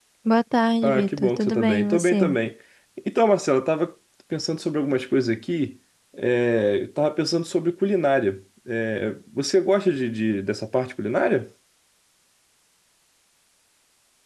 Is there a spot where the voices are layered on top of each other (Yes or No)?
Yes